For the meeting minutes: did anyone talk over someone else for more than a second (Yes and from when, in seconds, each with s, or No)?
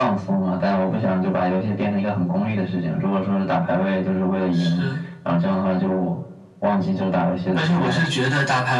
No